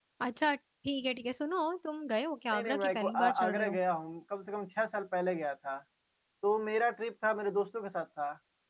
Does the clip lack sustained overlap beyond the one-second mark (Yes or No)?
No